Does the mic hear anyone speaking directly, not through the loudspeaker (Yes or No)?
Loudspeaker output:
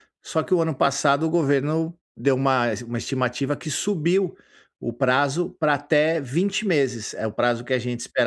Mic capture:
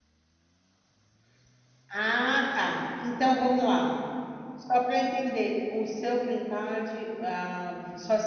Yes